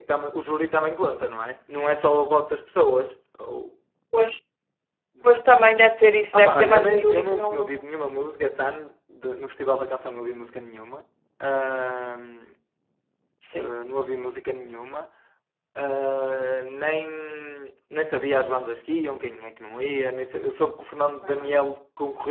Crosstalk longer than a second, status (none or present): present